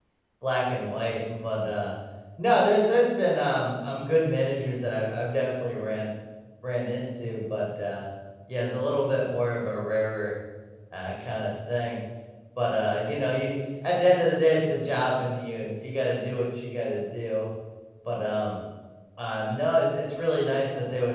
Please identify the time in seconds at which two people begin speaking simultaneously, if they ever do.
none

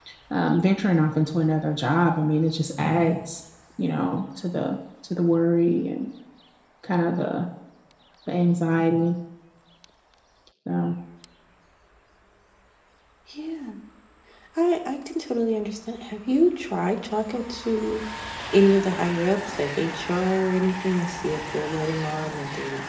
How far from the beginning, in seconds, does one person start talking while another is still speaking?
none

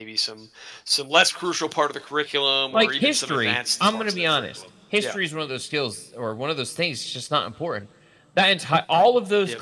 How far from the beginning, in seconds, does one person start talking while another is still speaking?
2.7 s

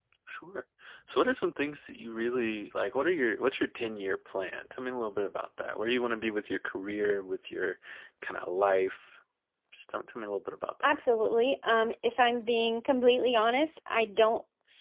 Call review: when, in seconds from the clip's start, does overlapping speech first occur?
none

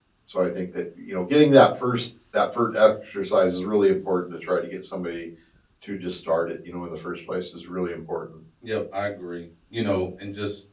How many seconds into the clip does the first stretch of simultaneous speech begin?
none

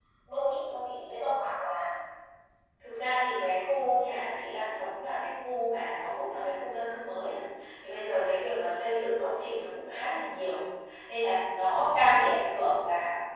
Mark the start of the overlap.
none

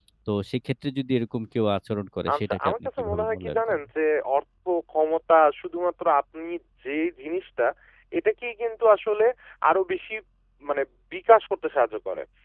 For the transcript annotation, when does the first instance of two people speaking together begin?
2.3 s

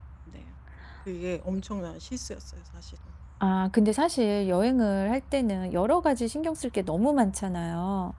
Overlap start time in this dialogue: none

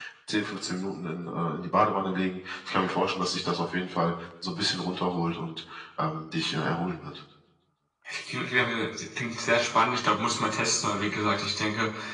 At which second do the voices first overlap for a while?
none

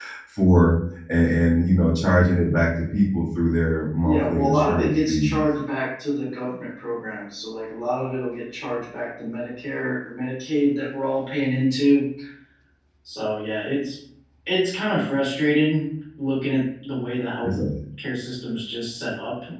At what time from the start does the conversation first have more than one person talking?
4.0 s

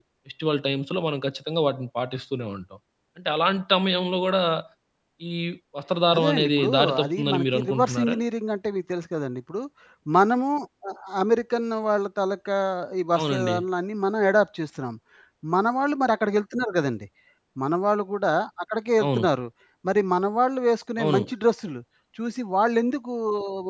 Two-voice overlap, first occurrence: 6.2 s

